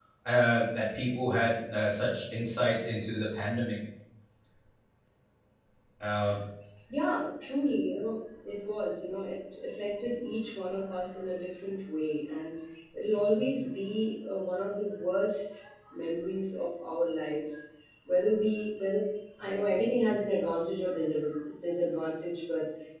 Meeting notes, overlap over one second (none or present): none